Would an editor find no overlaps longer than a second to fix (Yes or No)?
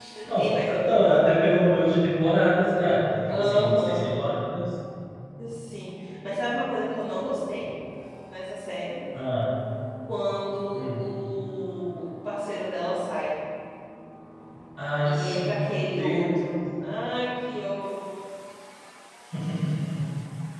No